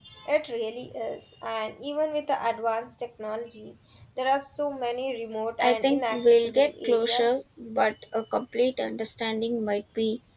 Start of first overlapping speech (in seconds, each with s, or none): 5.6 s